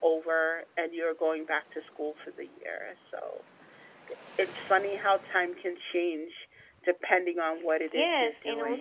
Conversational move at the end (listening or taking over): taking over